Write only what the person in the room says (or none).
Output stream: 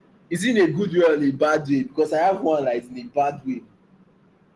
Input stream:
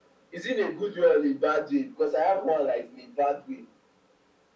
none